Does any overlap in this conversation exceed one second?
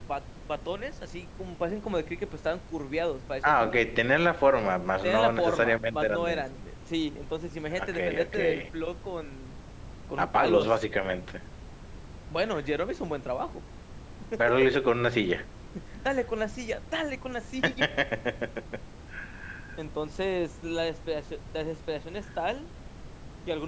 Yes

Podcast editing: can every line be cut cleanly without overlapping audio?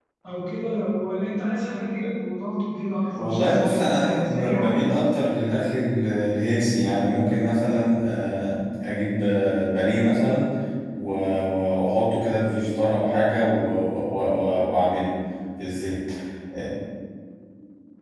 No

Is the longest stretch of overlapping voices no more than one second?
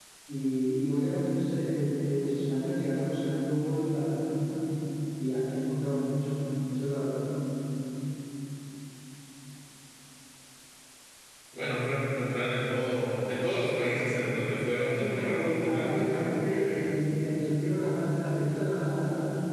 No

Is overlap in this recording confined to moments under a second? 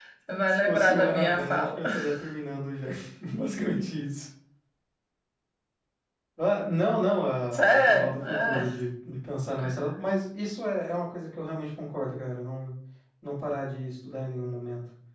No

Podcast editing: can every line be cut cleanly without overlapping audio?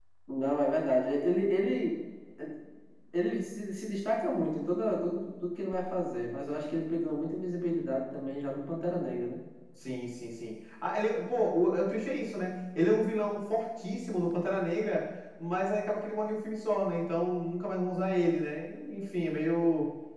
Yes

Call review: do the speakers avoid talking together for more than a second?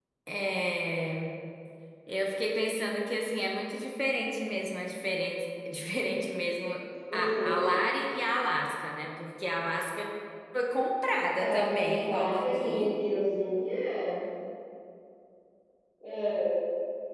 No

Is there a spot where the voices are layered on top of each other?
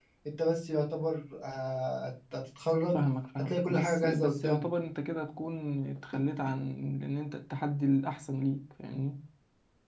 Yes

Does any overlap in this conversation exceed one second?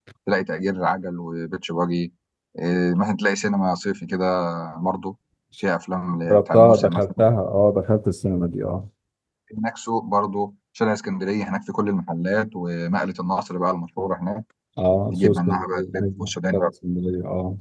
Yes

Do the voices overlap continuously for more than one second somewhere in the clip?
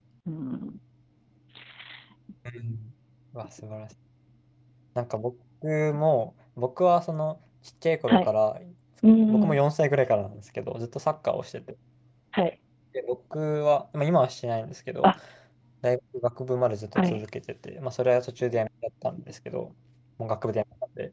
No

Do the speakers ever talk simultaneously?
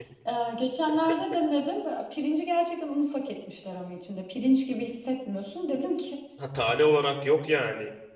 No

